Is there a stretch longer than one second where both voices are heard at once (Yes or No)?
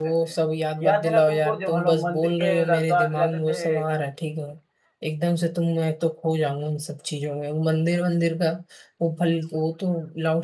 Yes